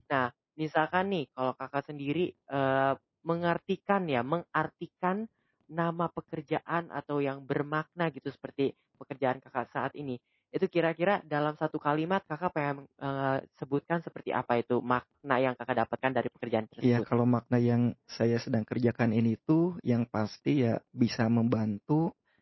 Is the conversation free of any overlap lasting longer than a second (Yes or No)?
Yes